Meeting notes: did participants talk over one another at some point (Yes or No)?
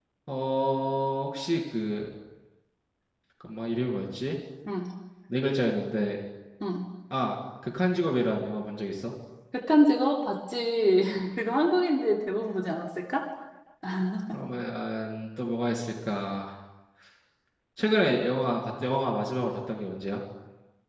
No